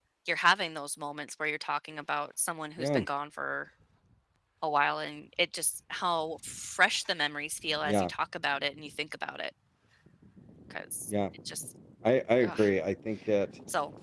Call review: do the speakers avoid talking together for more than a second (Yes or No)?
Yes